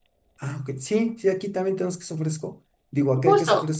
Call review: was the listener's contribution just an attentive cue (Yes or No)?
Yes